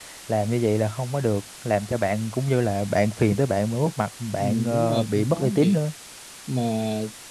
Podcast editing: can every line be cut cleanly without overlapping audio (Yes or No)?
No